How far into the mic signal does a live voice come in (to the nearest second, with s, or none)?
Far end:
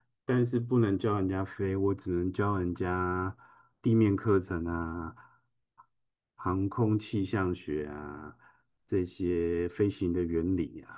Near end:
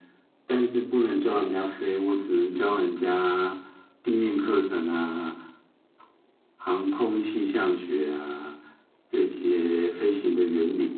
none